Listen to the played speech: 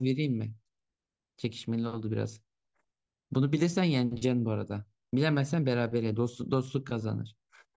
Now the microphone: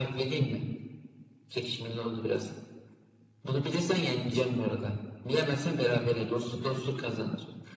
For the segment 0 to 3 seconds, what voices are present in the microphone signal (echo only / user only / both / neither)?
echo only